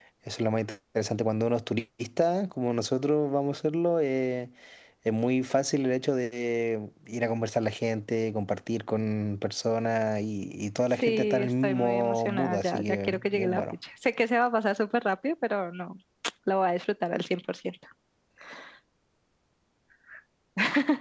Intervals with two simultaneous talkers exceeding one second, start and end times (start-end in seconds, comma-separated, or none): 10.9-13.8